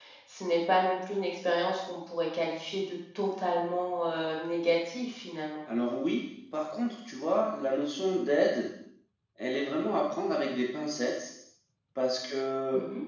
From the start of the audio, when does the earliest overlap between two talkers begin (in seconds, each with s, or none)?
none